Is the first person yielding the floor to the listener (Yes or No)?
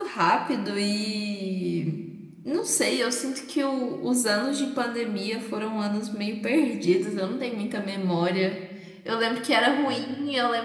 No